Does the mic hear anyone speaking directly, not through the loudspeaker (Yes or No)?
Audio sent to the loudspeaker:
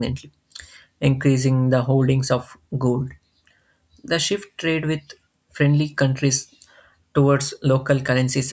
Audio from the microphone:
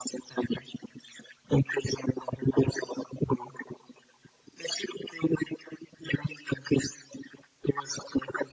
No